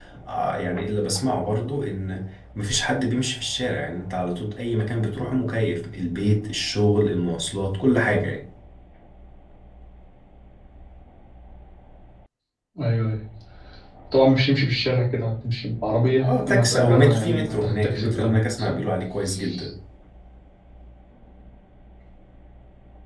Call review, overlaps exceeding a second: present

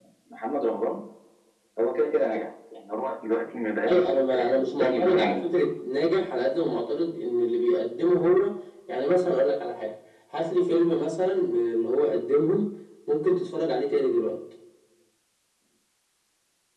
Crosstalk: present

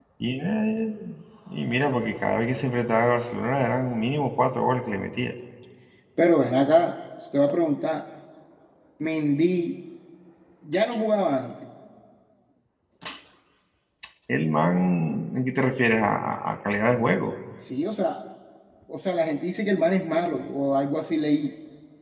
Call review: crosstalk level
none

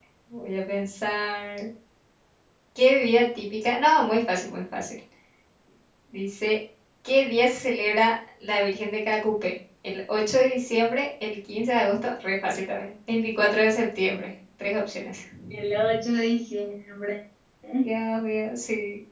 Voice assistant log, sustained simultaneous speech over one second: none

